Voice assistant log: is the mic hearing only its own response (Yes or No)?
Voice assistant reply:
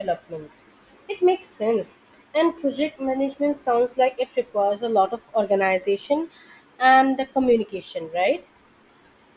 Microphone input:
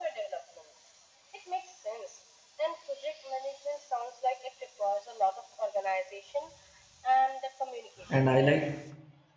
No